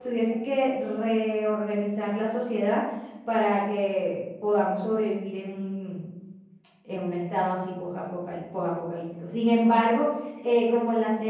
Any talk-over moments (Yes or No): No